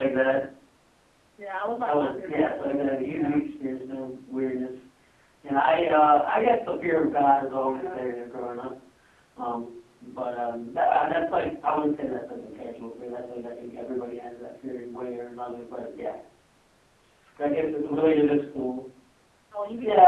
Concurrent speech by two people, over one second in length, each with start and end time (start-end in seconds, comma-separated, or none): 1.8-3.4